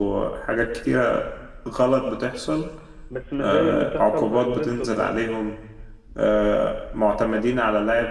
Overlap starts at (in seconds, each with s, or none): 3.4 s